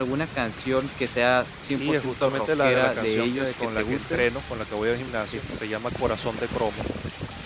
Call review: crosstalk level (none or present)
present